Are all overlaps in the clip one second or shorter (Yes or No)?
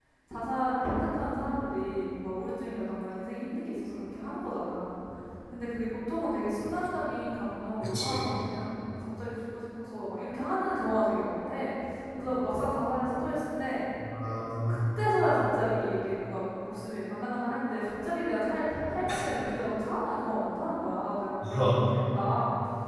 Yes